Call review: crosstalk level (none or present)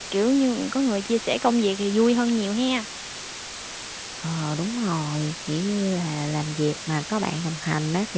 none